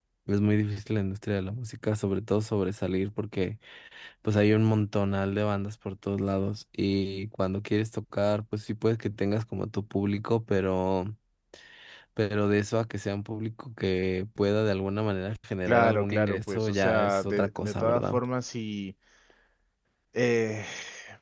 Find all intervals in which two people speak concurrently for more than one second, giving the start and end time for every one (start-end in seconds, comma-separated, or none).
15.7-18.2